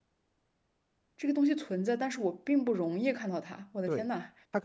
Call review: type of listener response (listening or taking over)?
taking over